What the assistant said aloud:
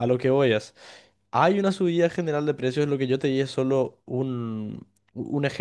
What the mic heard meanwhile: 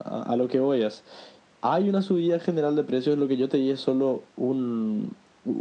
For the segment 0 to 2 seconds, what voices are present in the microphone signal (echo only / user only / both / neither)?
echo only